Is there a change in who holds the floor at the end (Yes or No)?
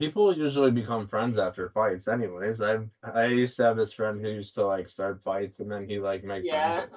Yes